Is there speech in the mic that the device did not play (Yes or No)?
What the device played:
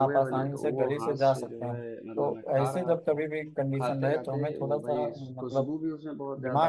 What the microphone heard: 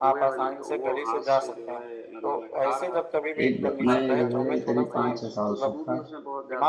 Yes